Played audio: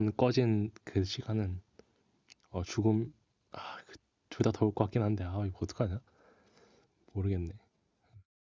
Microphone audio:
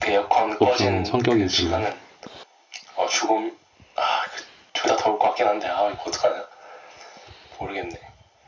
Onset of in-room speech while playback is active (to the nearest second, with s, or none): 1 s